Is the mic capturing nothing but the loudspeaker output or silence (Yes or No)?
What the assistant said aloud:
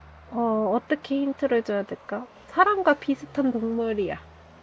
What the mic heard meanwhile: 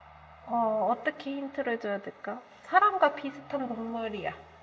Yes